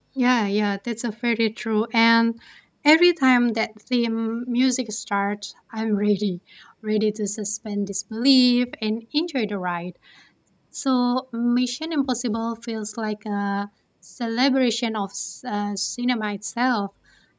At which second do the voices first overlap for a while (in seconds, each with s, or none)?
none